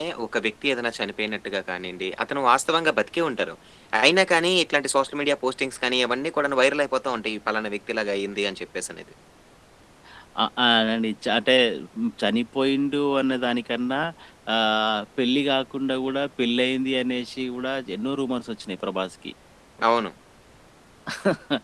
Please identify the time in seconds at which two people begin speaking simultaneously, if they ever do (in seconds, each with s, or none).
none